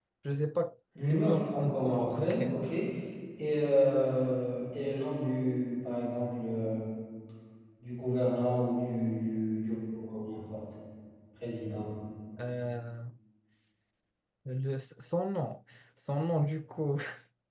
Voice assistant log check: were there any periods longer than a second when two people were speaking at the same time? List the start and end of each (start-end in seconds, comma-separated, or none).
0.9-2.7